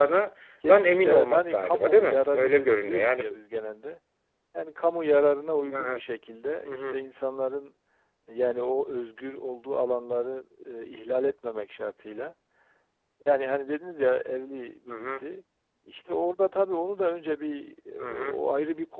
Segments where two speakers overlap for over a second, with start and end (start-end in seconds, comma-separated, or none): 0.7-3.2